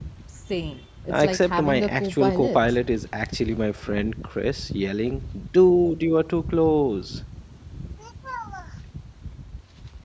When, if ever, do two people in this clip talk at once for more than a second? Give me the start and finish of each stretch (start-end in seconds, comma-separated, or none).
1.1-2.6